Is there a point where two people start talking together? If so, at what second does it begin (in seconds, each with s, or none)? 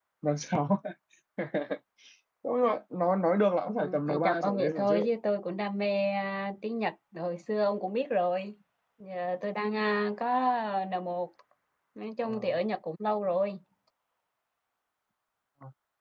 3.8 s